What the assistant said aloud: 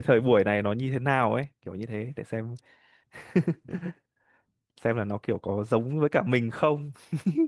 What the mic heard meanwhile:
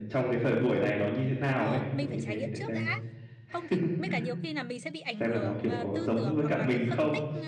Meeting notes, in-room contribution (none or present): present